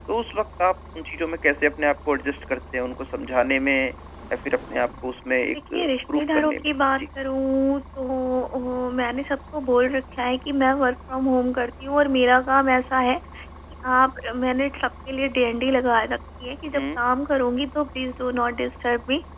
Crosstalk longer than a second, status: present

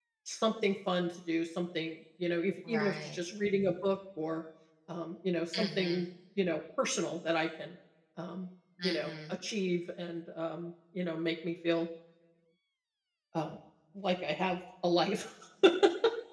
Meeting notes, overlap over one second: none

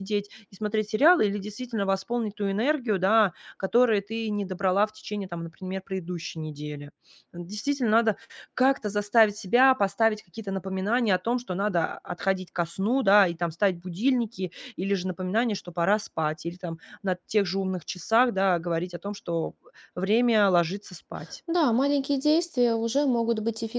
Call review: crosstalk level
none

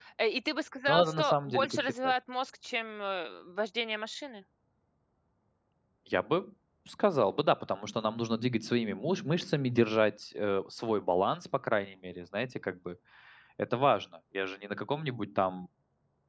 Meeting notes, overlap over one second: present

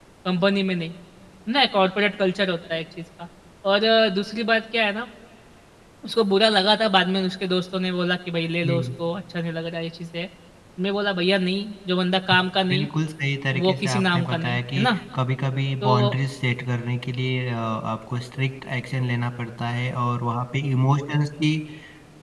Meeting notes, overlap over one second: present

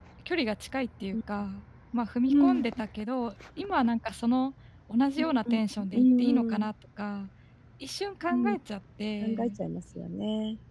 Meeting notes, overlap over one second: present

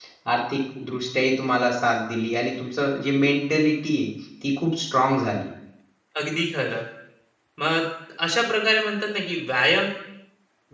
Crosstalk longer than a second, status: none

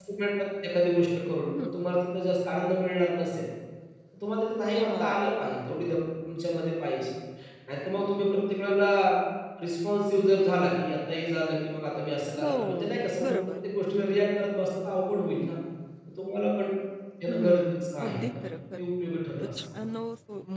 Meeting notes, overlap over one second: present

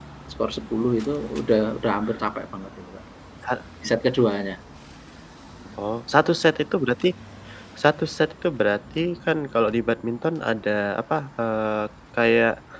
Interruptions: none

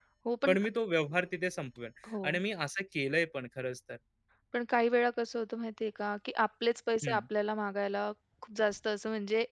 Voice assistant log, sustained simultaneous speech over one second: none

